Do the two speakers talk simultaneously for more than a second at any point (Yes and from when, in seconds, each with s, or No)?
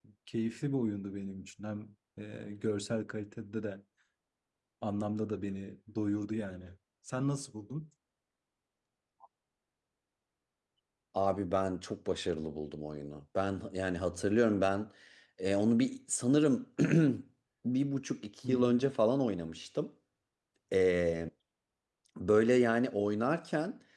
No